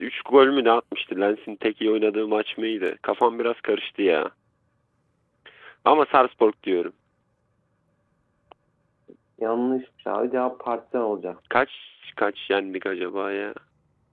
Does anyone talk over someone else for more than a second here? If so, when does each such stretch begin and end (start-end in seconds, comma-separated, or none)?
none